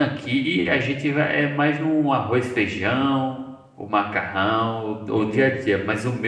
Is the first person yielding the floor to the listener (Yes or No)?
No